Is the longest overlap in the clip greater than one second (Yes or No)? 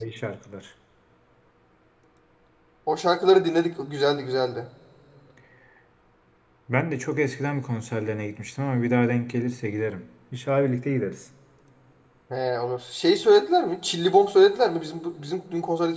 No